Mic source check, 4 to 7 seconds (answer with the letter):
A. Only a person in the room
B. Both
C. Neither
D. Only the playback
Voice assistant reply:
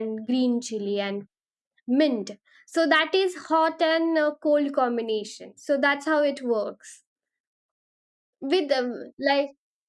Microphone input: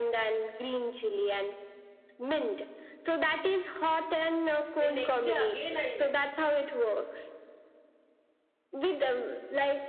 B